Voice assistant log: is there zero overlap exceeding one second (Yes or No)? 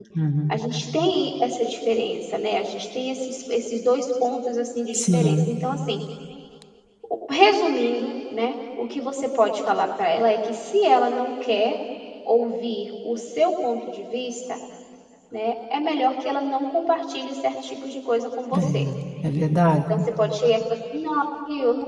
Yes